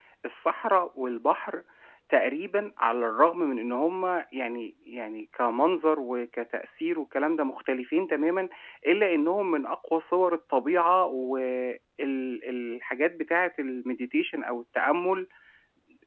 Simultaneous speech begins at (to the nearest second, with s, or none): none